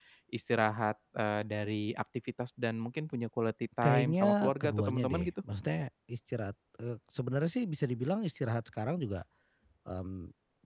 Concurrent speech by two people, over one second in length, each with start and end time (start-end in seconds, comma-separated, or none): 3.8-5.3